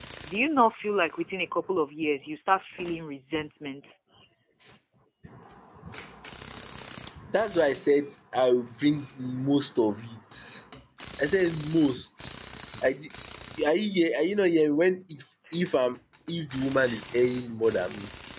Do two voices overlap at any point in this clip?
No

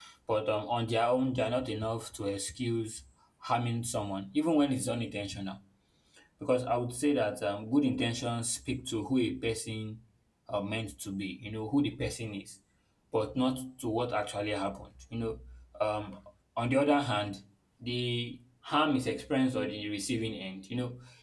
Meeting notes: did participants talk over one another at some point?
No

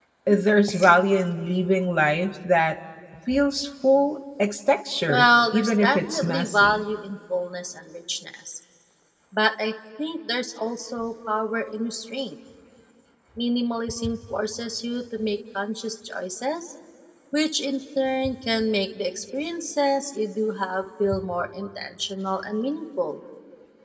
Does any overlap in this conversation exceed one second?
Yes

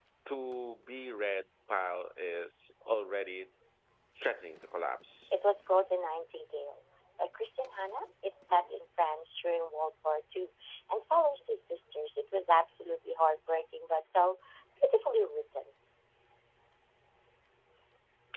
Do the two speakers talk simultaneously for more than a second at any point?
No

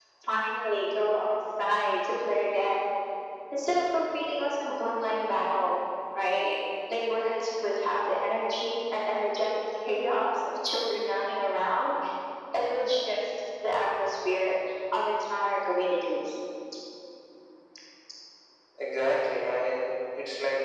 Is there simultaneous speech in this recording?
No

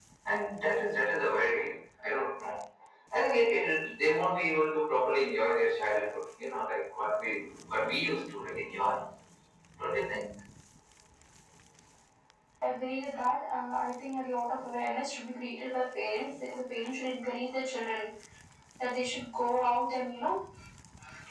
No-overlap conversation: Yes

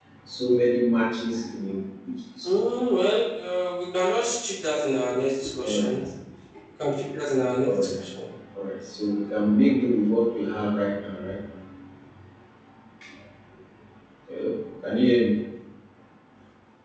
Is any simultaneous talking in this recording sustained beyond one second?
No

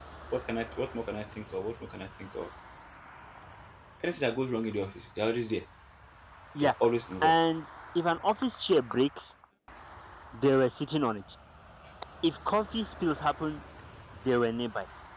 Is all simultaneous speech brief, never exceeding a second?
Yes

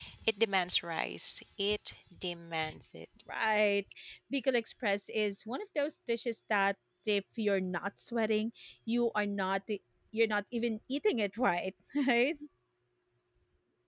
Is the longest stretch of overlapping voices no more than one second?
Yes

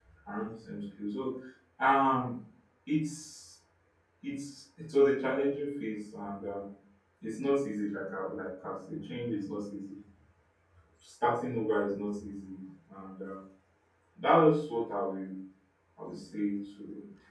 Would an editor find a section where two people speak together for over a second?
No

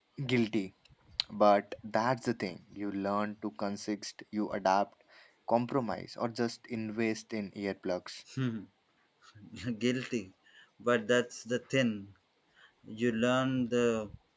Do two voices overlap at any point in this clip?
No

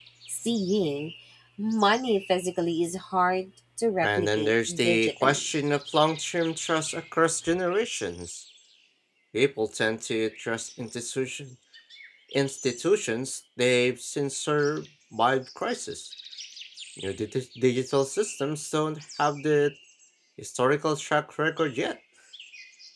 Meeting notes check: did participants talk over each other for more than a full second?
Yes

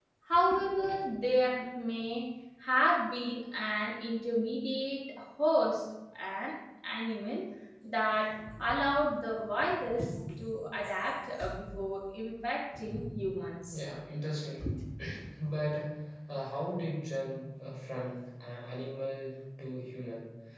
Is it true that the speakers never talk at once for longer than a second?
Yes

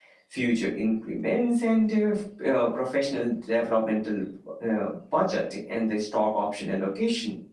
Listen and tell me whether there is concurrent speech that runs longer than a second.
No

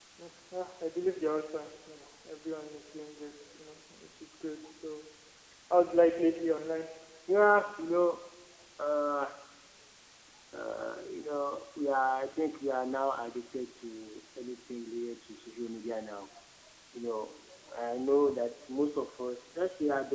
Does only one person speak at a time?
Yes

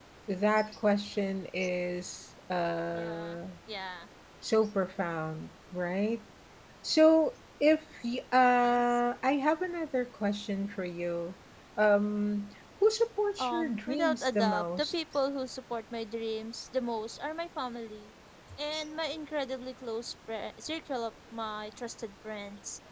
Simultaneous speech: Yes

